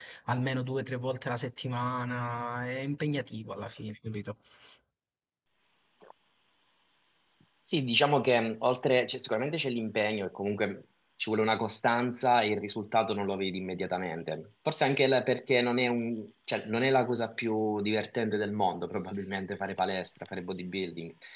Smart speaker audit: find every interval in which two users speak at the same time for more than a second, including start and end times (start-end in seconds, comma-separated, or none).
none